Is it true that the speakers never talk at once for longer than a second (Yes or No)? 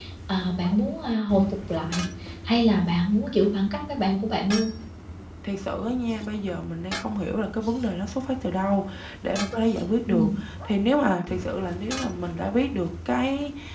Yes